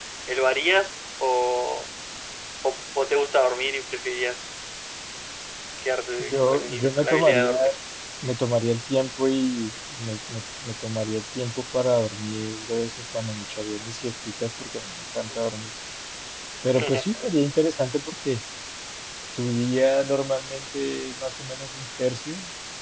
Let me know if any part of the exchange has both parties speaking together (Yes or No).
Yes